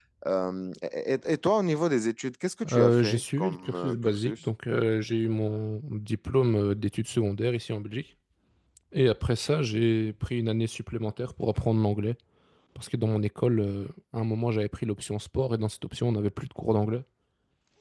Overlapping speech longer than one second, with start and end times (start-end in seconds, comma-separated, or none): 2.7-4.5